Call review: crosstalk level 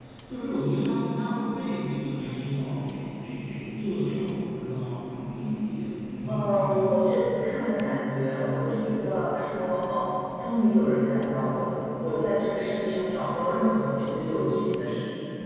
present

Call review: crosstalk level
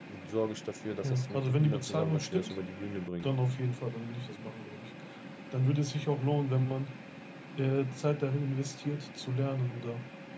present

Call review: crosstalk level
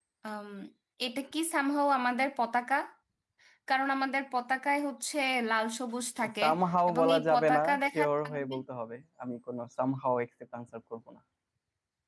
present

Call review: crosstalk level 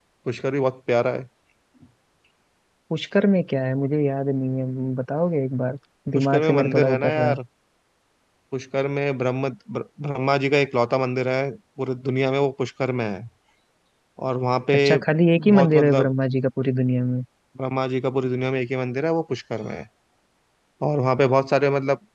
present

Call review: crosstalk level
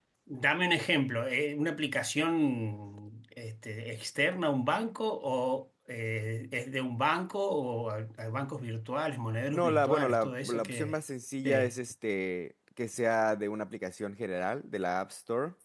present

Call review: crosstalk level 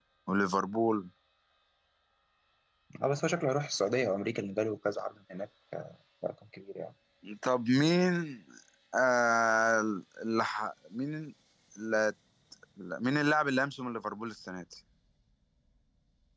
none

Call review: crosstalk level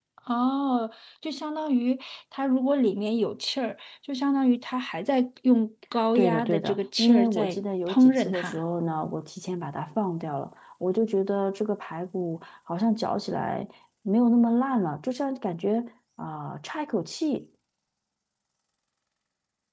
present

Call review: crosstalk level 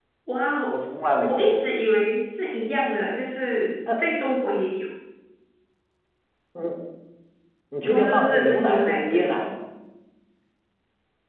present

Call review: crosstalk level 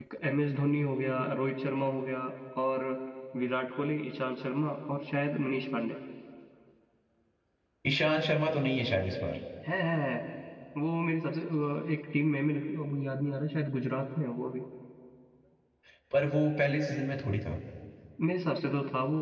none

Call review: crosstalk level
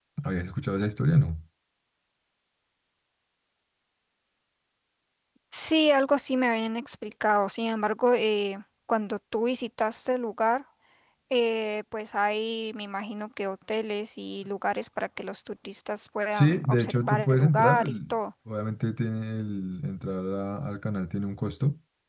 present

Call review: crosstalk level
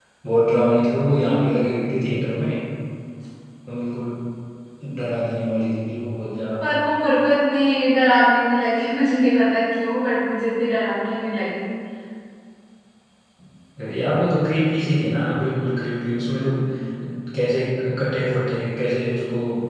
none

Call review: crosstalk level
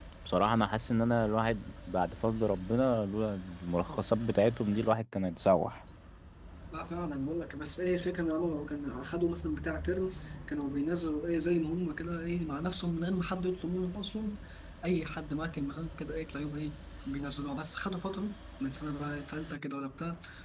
none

